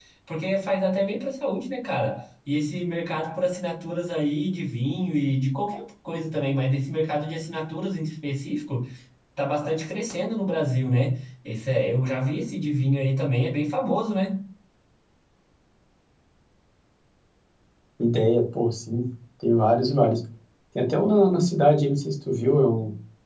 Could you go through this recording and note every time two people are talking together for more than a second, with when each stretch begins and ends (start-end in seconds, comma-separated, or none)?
none